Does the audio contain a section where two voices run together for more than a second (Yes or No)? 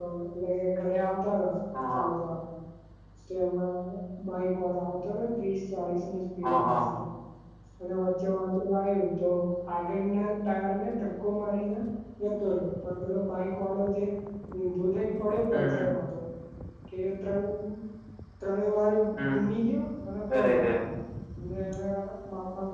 No